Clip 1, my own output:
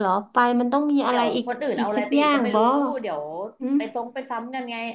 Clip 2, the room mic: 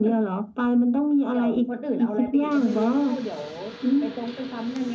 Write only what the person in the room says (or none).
none